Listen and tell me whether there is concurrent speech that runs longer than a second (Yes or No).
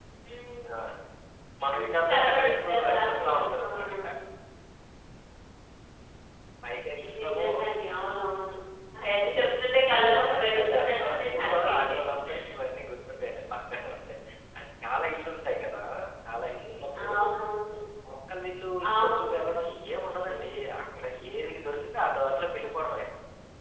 Yes